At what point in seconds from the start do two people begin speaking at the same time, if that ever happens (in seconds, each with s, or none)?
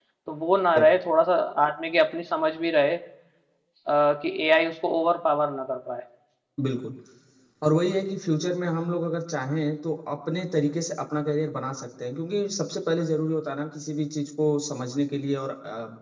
none